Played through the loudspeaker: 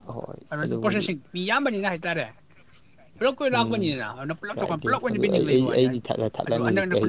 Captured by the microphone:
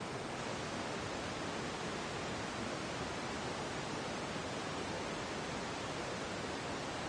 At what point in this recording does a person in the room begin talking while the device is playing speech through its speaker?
none

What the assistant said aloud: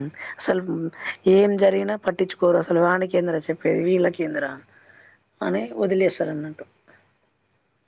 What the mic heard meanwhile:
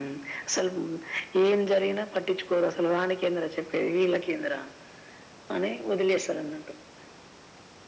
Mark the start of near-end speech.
none

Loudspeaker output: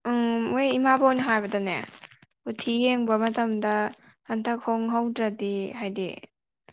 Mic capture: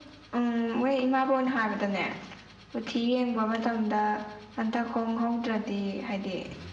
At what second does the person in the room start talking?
none

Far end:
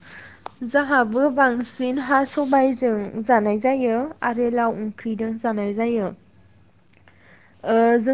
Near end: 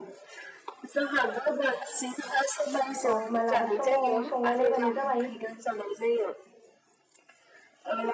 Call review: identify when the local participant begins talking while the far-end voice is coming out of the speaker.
3.1 s

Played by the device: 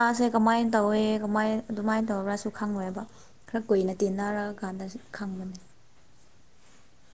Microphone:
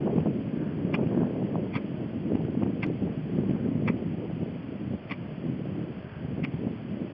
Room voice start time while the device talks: none

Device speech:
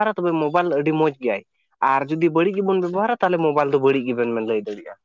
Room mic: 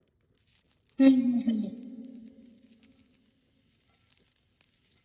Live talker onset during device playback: 1.0 s

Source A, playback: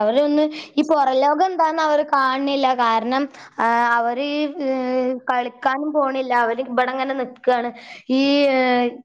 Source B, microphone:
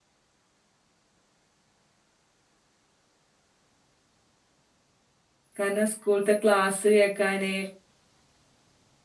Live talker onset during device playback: 5.6 s

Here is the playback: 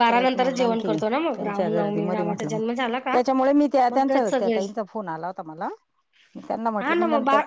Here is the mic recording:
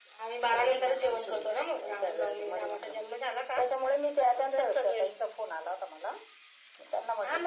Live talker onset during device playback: none

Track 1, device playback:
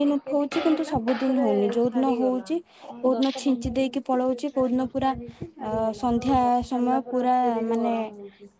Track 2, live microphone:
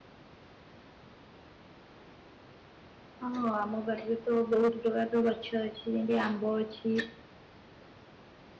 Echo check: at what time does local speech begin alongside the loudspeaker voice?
3.3 s

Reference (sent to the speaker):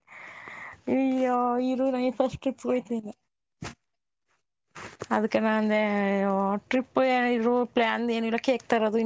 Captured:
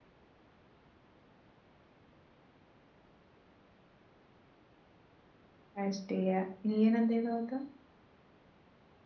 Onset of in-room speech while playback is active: 5.8 s

